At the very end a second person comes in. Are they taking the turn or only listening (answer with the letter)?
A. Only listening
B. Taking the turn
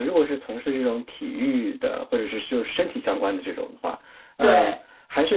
A